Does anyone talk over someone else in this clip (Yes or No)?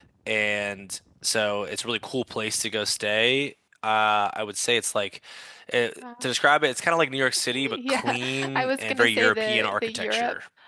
Yes